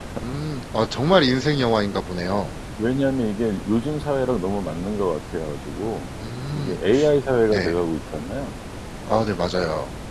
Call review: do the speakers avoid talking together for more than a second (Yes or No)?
Yes